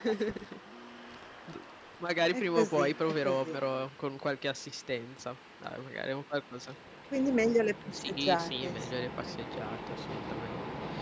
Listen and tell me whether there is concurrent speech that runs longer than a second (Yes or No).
Yes